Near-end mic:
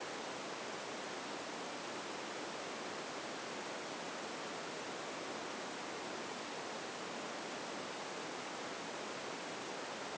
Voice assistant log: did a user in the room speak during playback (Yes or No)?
No